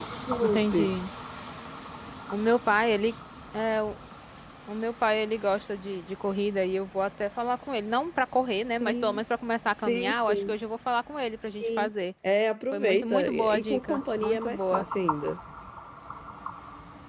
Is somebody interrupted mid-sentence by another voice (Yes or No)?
Yes